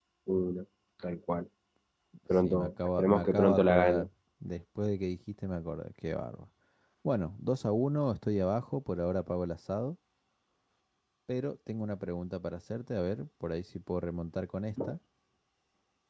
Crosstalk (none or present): present